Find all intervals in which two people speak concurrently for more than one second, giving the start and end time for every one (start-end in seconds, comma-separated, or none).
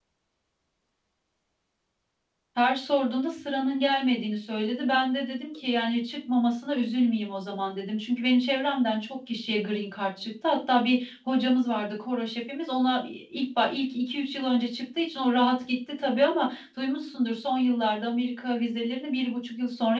none